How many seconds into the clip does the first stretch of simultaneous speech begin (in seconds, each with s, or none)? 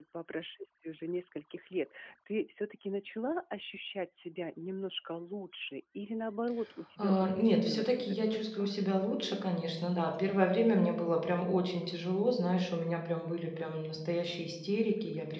7.0 s